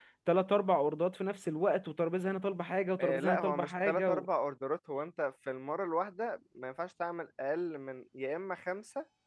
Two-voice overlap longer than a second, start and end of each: 3.0-4.2

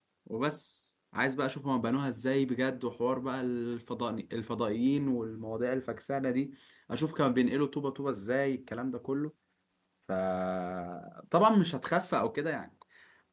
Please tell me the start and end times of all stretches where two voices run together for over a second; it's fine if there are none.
none

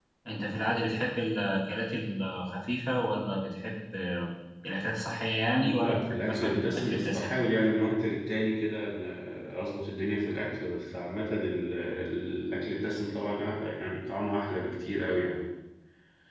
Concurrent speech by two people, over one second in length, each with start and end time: 5.6-7.3

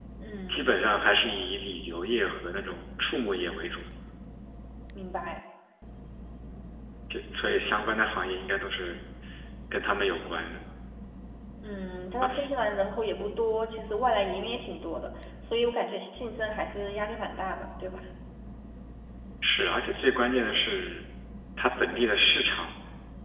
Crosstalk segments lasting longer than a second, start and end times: none

